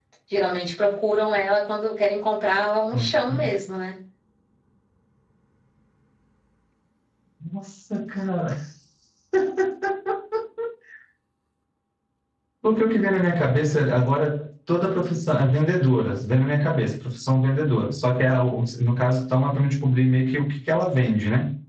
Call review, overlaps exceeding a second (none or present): none